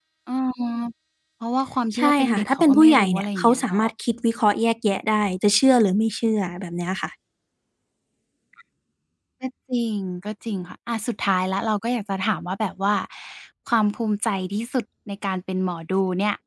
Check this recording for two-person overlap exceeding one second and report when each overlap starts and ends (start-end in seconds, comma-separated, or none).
2.0-3.8